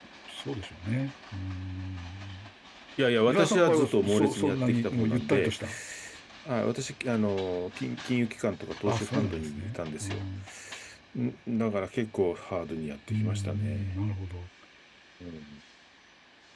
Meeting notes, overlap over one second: present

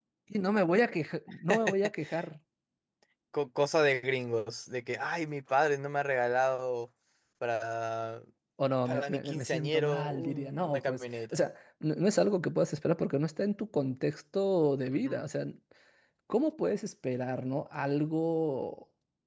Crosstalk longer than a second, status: present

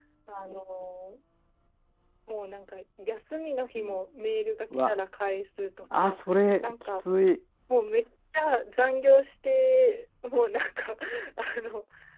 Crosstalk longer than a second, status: none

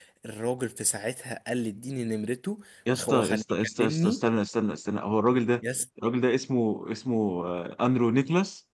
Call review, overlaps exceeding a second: present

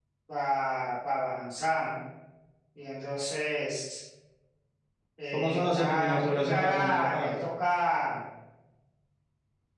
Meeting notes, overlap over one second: present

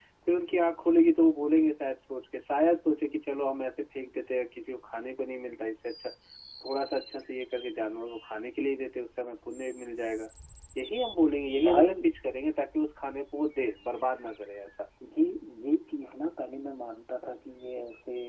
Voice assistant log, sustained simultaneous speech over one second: none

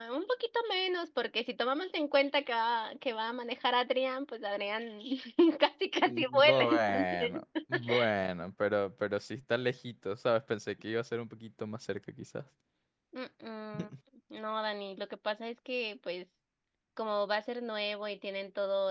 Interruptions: present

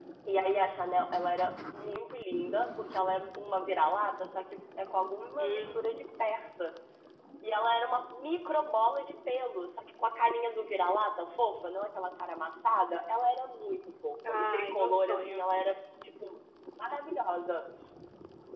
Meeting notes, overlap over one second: present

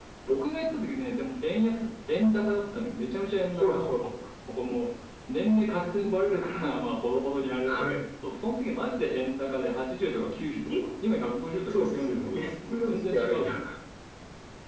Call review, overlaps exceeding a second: present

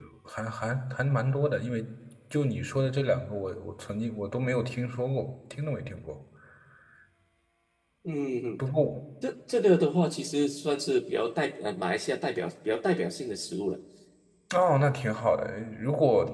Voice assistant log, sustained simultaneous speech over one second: none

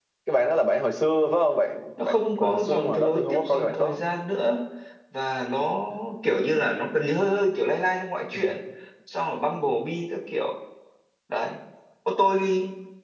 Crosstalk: present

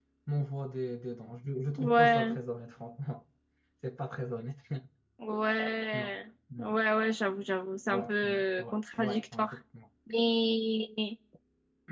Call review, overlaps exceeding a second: present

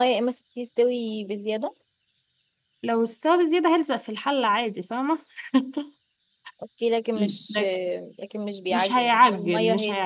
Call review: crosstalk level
present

